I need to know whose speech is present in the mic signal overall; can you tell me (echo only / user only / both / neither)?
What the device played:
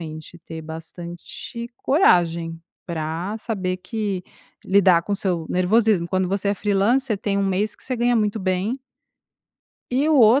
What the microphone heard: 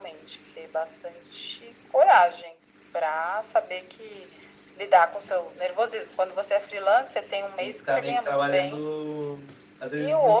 both